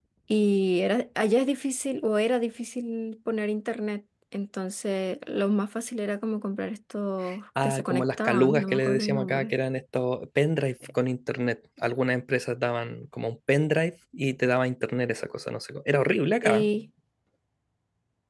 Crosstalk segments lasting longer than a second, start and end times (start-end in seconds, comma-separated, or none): 7.6-9.5